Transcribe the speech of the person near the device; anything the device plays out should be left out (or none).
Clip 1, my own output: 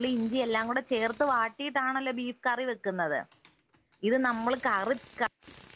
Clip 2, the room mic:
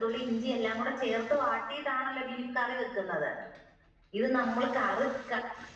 none